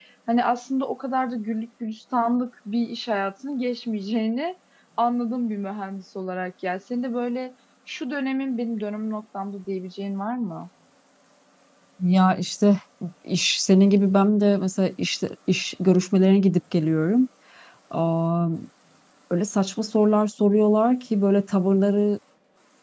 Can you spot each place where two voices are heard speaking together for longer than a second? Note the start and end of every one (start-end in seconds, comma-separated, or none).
none